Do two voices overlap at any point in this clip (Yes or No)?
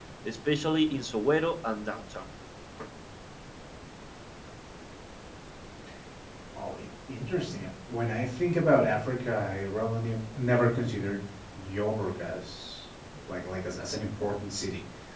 No